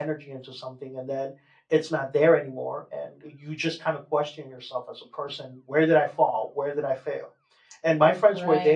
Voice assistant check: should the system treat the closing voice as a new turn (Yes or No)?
No